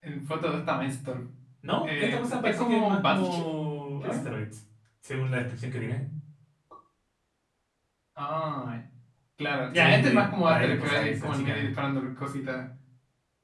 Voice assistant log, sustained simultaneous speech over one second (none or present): present